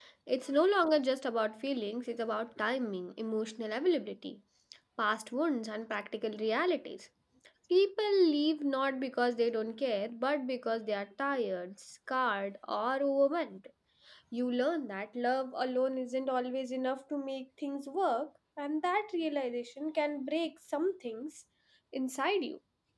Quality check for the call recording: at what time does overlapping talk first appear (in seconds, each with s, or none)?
none